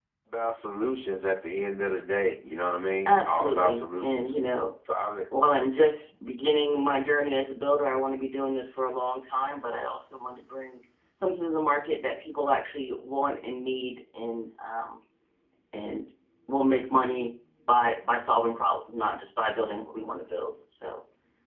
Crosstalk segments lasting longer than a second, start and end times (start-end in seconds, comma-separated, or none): 3.1-4.4